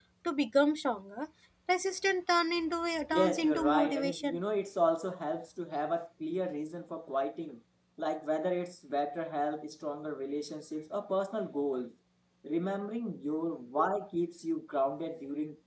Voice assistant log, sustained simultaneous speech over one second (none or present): present